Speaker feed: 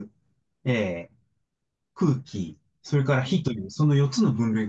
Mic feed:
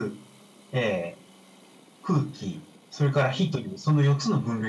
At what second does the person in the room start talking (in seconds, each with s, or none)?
none